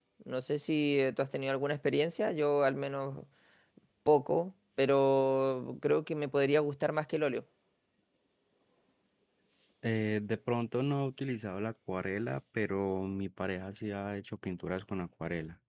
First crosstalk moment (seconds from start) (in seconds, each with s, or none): none